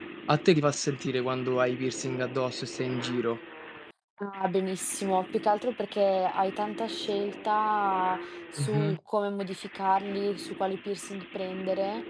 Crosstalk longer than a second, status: none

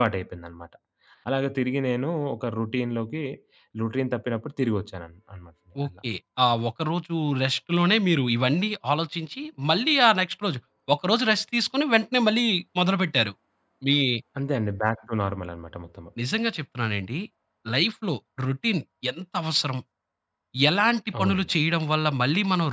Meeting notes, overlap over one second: none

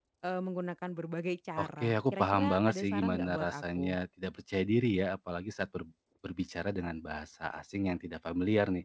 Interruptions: present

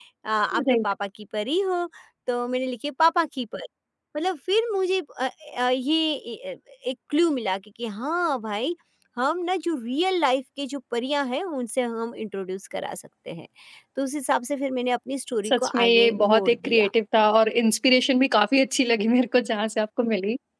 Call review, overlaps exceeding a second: present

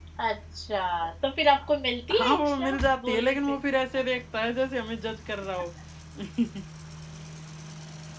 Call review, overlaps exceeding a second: present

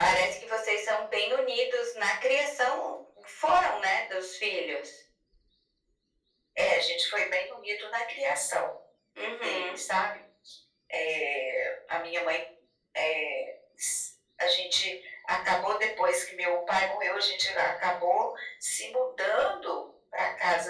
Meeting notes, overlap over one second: none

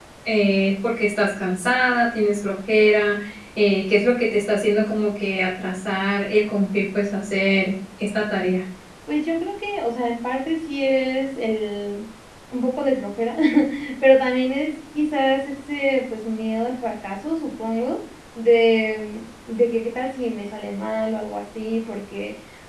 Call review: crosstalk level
none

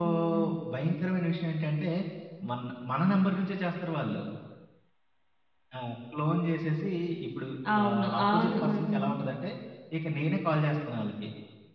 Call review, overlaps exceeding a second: present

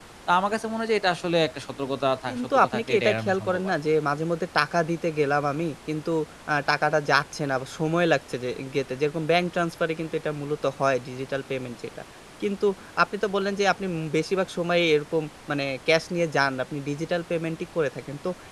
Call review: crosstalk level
present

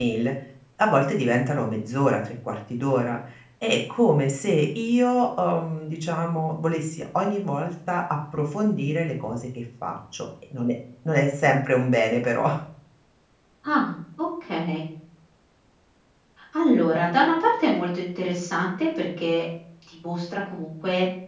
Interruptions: none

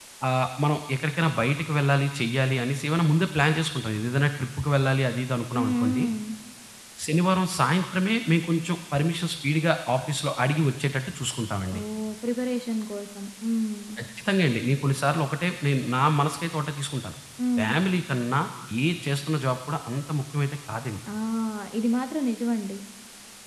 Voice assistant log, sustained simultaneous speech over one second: none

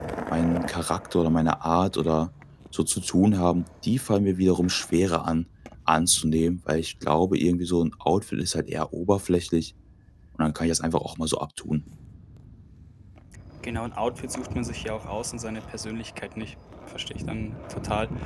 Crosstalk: none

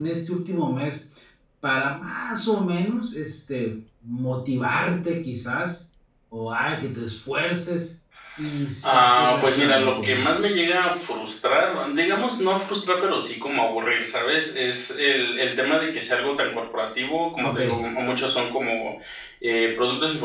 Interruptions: present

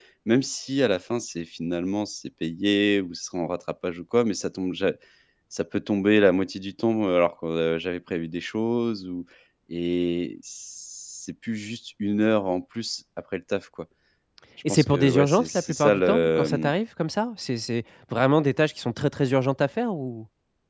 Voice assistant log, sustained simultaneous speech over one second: present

